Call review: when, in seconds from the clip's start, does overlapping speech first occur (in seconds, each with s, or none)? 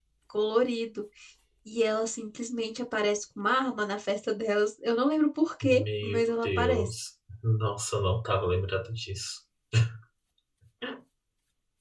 5.6 s